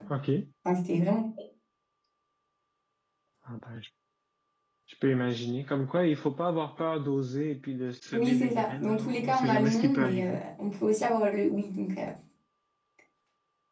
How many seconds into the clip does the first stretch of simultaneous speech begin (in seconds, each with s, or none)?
8.1 s